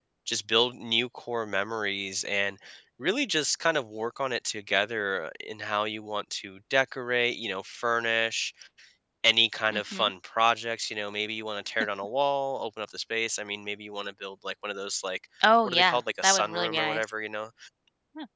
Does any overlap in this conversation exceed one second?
Yes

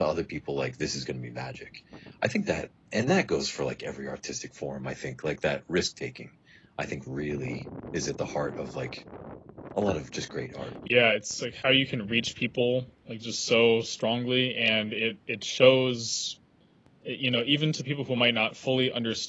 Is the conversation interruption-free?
Yes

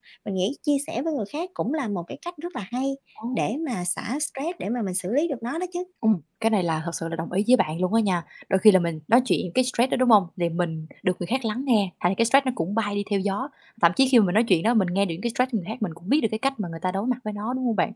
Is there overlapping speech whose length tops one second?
No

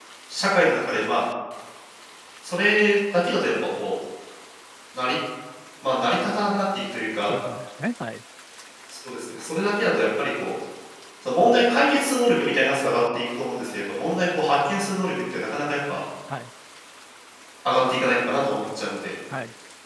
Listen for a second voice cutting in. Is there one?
No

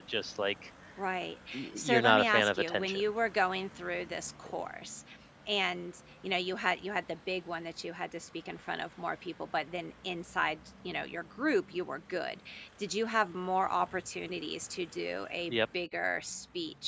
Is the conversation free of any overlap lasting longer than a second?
No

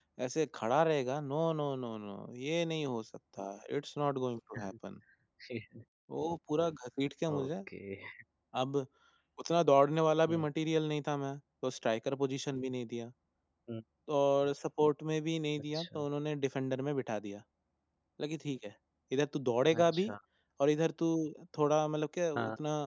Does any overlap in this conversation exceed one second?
No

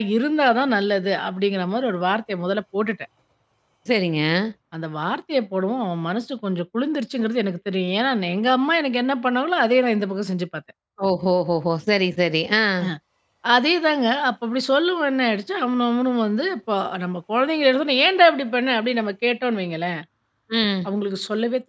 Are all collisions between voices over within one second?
Yes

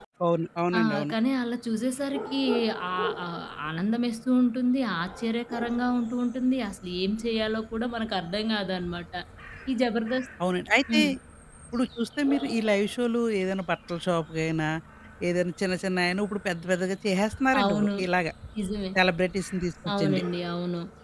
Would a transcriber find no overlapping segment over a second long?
Yes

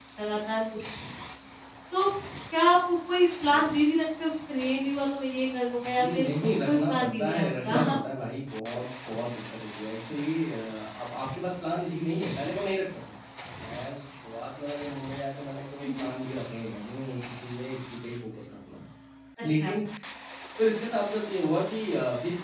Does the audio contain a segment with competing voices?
Yes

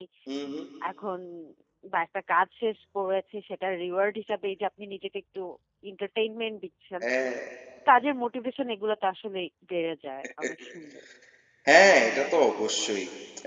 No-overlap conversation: Yes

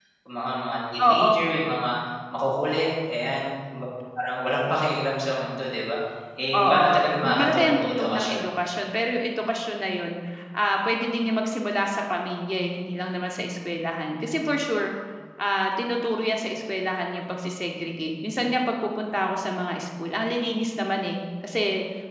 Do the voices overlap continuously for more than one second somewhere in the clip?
Yes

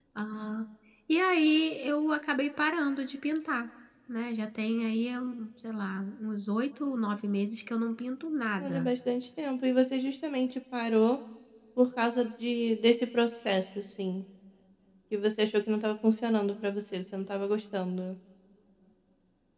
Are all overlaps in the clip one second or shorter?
Yes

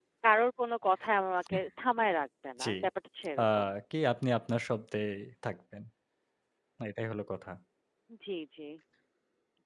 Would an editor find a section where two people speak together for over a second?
No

